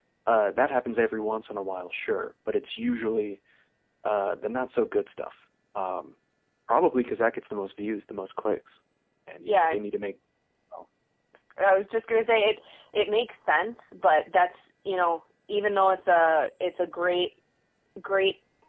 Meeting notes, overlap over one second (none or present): none